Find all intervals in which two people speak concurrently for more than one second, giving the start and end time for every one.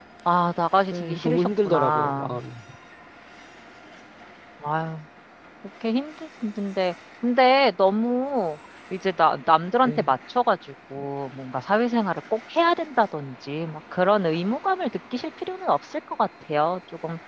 0.9-2.4

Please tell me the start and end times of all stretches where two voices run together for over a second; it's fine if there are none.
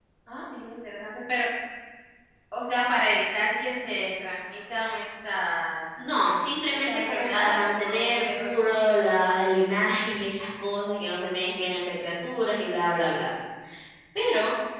6.7-9.1

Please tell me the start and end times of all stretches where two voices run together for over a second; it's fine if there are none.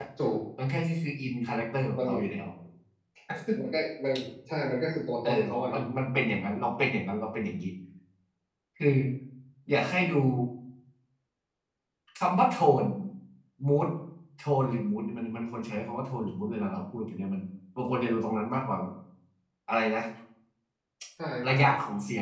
none

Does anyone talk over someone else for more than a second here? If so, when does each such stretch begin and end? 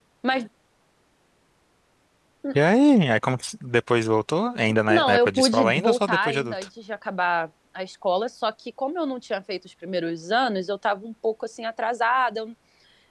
4.9-6.5

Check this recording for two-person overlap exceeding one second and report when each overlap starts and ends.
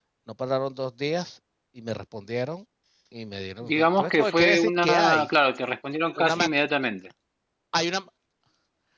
3.7-5.3

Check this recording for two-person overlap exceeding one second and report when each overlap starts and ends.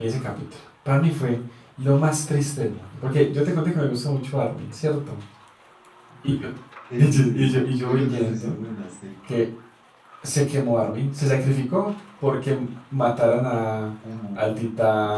7.0-8.6

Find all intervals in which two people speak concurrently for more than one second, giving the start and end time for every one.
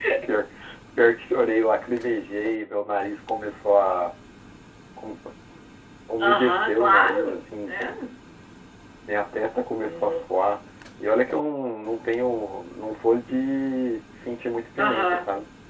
6.2-7.9

